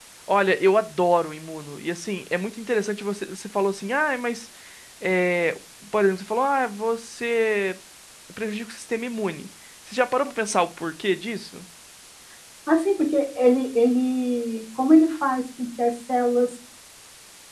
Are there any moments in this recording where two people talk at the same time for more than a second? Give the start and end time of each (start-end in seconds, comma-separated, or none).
none